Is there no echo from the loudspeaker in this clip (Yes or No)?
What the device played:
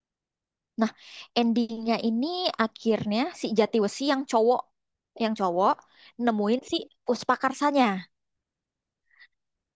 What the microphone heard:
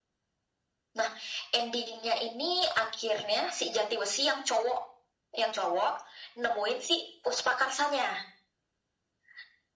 No